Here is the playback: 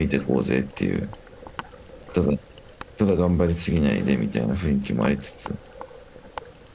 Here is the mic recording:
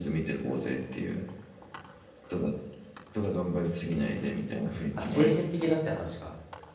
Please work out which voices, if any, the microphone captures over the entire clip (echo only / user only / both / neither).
both